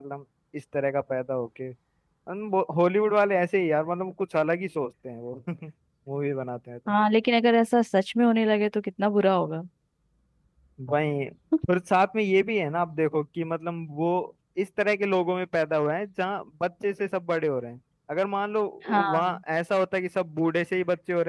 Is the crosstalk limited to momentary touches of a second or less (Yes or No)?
Yes